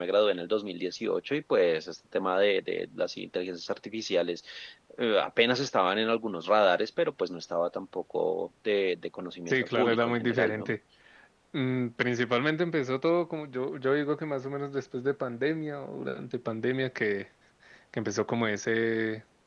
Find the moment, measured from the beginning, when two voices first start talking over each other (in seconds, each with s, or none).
9.5 s